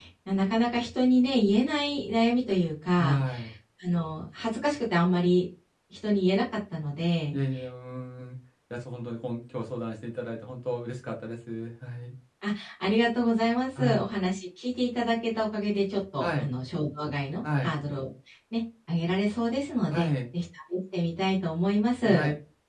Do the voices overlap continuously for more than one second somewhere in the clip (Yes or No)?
No